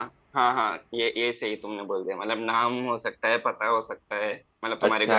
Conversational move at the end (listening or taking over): taking over